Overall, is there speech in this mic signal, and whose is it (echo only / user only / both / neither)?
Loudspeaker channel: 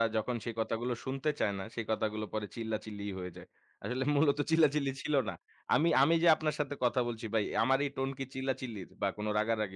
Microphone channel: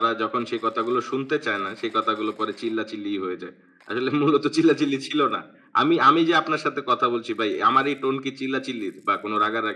echo only